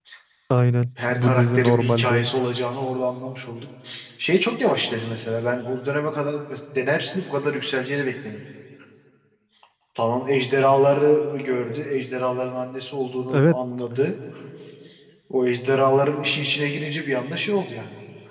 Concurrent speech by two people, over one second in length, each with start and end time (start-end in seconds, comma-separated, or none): 1.1-2.3